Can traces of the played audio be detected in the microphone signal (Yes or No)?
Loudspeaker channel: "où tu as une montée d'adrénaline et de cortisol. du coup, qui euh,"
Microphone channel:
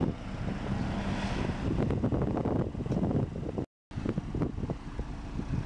No